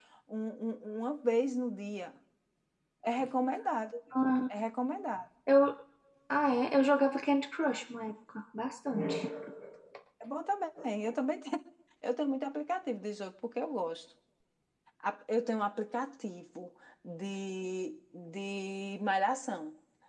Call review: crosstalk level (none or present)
none